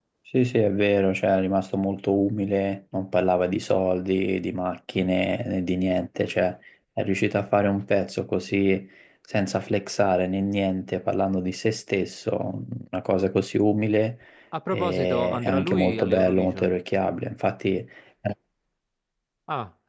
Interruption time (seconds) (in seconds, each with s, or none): 14.7 s